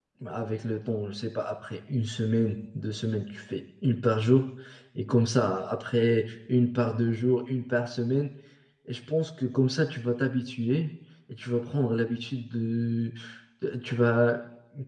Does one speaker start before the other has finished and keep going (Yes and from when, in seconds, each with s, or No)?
No